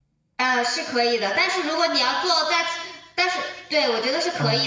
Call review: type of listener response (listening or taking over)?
listening